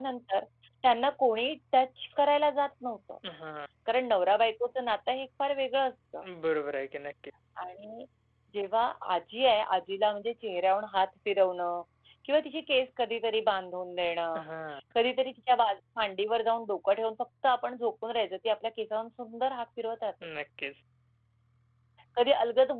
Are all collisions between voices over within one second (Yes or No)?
Yes